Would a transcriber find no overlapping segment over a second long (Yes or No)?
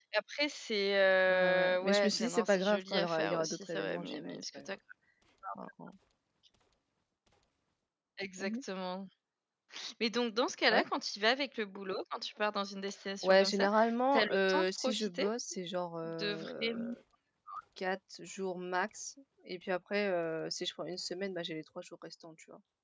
No